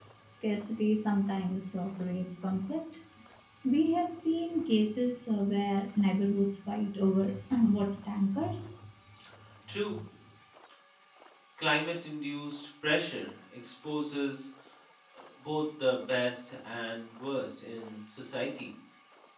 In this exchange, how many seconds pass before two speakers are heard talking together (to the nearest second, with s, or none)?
none